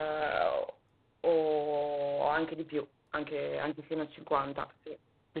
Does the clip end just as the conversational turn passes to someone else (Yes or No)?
Yes